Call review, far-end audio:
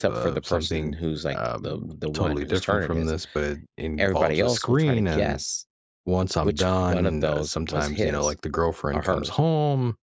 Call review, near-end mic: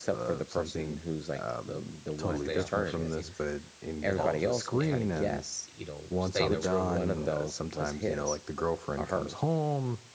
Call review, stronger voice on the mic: echo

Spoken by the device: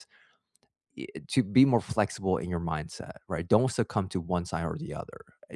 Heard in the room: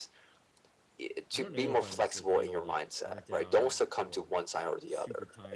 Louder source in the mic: echo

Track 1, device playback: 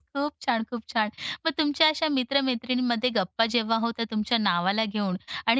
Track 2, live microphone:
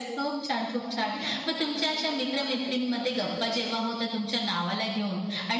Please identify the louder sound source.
echo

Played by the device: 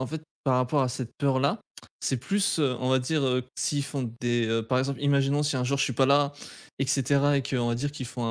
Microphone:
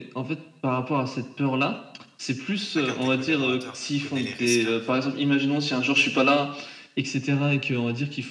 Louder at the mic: echo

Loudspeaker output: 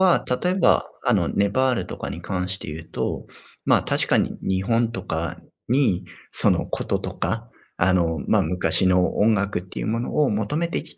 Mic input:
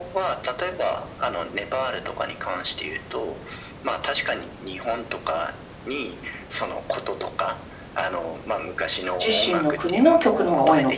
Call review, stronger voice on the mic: user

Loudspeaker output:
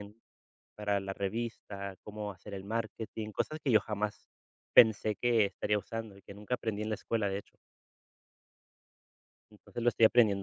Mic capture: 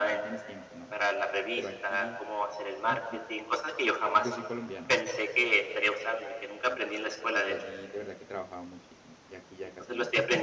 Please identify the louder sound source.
echo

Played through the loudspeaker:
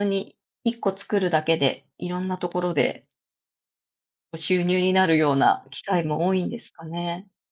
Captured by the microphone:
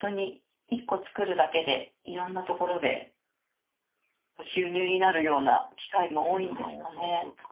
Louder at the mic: echo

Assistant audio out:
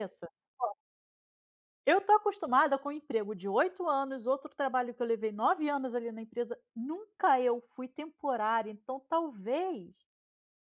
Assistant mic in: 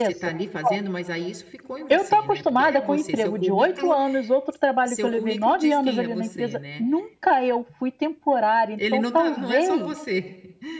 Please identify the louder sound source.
echo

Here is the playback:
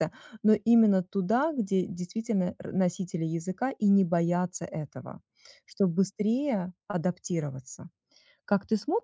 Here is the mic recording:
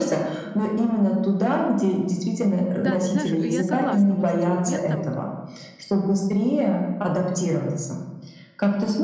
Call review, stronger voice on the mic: echo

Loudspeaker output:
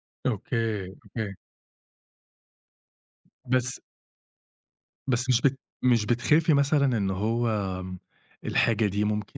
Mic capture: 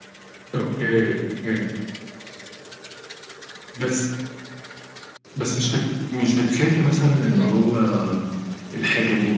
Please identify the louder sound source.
echo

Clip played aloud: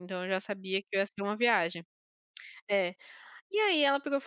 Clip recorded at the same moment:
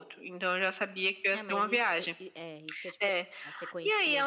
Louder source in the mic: echo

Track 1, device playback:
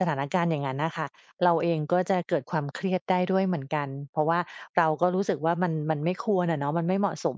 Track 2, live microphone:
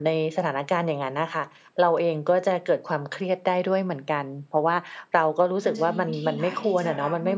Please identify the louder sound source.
echo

